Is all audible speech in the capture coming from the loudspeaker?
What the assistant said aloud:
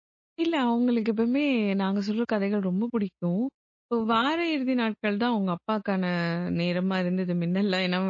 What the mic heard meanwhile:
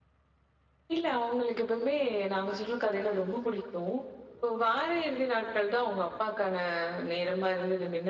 Yes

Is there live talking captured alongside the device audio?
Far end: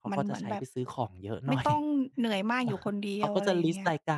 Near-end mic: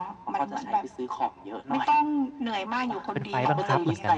Yes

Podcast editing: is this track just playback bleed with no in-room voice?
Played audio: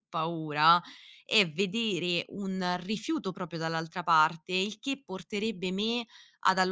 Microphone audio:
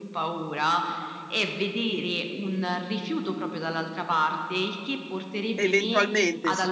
No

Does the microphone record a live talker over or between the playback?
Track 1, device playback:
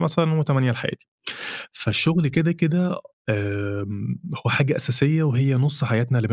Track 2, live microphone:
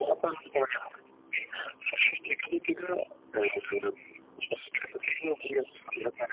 No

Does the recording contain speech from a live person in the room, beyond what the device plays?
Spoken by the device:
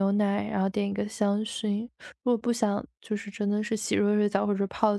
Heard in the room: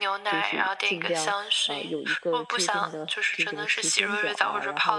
Yes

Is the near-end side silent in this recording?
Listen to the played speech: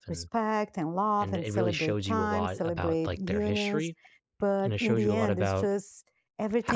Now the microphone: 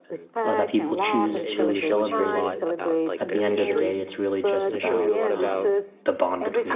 No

